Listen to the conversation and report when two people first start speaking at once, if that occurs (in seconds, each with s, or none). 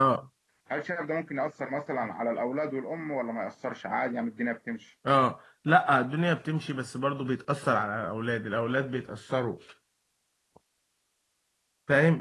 none